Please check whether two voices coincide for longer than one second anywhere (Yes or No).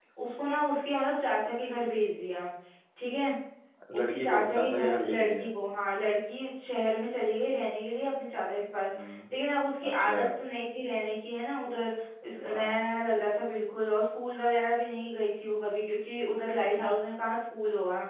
Yes